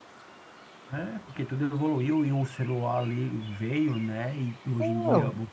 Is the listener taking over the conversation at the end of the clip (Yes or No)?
No